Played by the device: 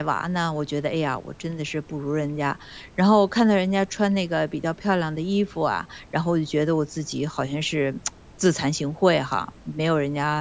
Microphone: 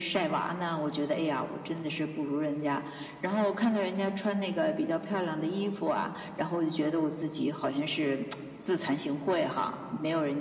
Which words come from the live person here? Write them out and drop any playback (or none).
none